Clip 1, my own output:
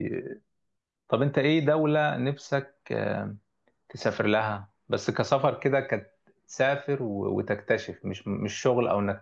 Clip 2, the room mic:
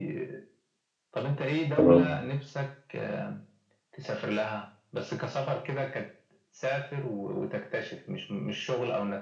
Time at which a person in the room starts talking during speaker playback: 1.7 s

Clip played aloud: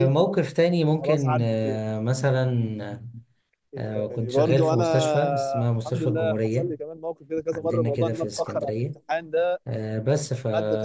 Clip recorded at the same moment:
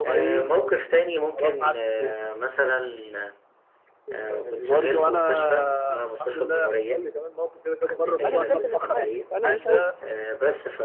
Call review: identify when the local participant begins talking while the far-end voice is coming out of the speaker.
8.2 s

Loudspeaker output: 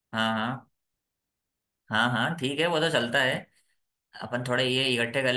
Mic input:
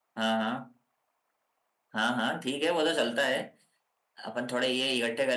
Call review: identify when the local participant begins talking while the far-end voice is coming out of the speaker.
none

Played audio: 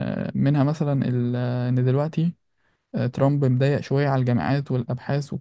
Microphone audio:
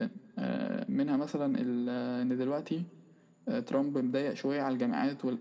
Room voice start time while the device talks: none

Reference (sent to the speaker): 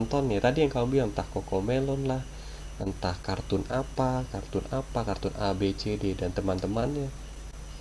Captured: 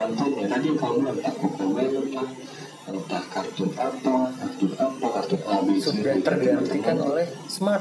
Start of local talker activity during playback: 5.8 s

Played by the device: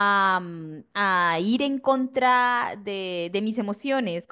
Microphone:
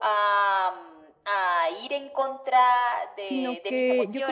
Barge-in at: 3.2 s

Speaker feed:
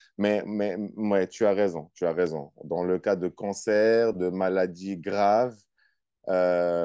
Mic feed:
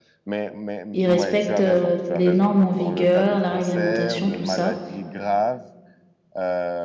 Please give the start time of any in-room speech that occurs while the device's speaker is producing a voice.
0.9 s

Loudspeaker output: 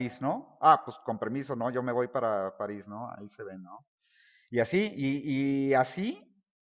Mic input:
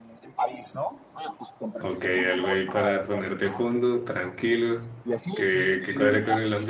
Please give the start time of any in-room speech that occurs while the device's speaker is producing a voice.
1.8 s

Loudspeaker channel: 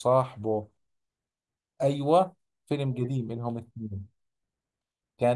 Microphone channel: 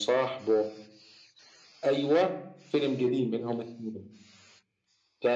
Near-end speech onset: none

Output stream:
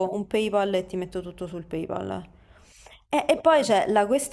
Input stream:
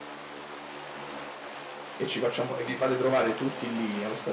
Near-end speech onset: 1.9 s

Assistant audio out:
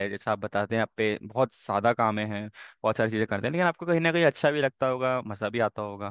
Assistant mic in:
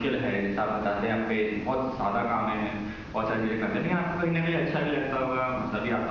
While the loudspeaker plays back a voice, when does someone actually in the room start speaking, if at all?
none

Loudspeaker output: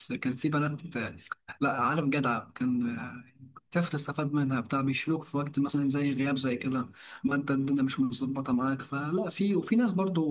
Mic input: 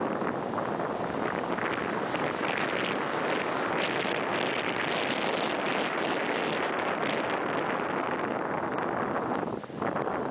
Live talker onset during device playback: none

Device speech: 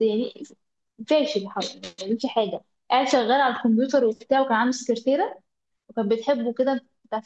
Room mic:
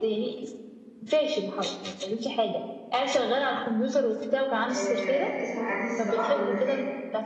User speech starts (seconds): 4.7 s

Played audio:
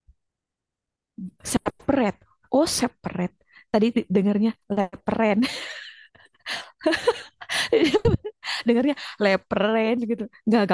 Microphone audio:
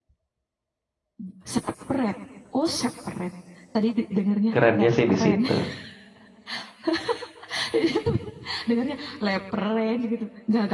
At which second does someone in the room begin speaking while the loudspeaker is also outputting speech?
4.5 s

